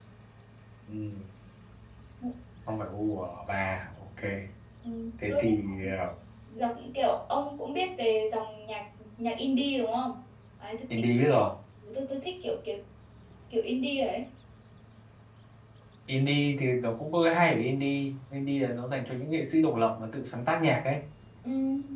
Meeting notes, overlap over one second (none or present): none